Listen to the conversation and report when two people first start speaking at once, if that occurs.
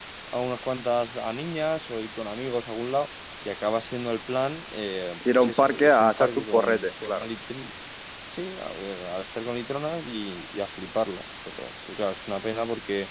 5.2 s

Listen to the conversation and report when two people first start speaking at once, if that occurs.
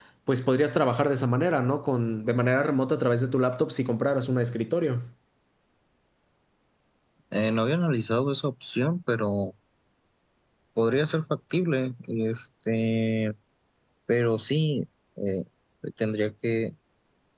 none

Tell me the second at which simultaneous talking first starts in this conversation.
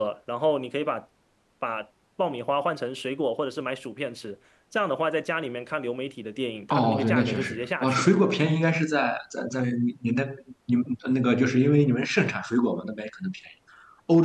6.7 s

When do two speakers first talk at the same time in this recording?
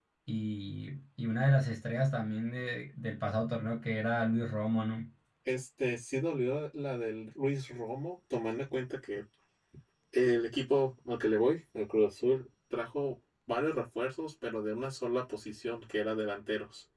none

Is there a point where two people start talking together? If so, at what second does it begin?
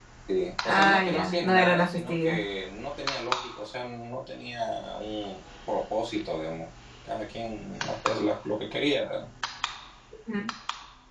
0.6 s

